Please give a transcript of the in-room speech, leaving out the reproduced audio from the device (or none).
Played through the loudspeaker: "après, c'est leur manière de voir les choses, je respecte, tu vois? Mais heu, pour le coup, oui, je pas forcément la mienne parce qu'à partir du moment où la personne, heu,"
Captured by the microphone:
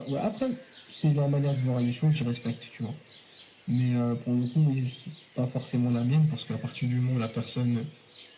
none